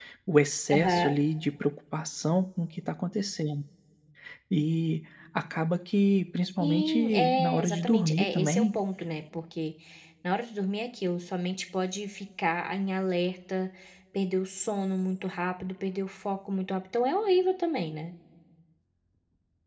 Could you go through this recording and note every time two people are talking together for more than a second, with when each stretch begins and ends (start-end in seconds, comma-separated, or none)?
6.6-8.8